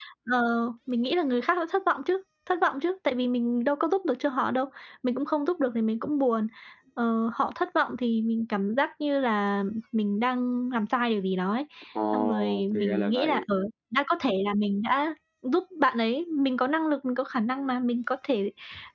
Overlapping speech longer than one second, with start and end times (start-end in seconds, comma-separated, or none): 12.1-13.4